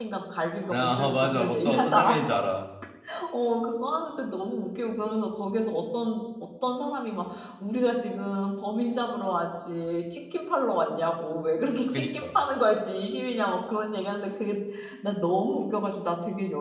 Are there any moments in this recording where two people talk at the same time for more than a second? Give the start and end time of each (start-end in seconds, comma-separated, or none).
0.7-2.3